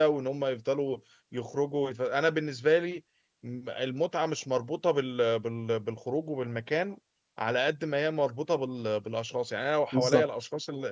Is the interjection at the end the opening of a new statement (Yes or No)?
No